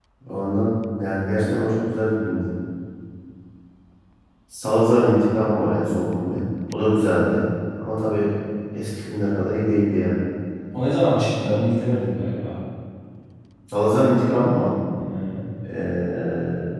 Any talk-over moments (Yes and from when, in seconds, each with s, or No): No